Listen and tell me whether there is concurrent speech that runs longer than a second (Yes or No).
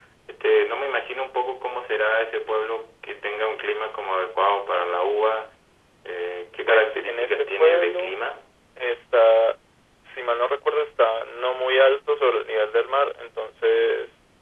Yes